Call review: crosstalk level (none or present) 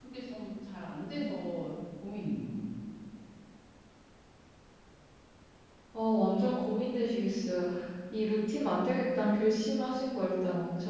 none